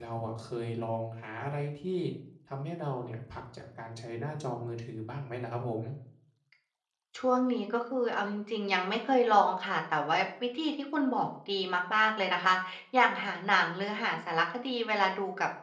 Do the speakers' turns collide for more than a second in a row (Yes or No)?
No